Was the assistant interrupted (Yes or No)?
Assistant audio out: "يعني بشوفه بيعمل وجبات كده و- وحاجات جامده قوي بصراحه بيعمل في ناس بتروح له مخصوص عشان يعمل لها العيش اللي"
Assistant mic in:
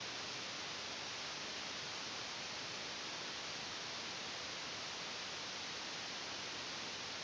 No